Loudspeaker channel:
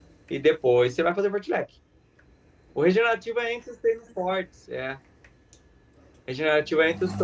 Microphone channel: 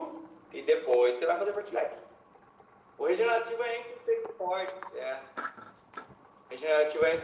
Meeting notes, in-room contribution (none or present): none